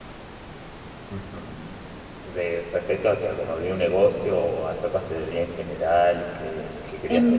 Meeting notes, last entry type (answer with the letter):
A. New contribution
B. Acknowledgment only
A